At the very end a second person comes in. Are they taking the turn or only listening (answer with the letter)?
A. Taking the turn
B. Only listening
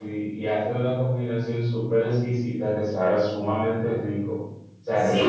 A